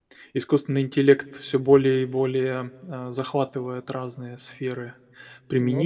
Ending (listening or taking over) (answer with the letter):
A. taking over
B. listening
B